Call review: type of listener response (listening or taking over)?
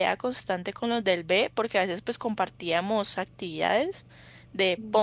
listening